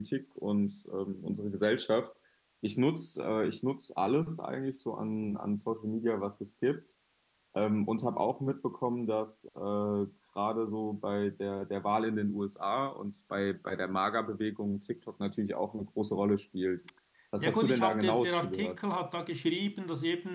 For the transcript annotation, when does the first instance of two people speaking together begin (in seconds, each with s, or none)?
17.4 s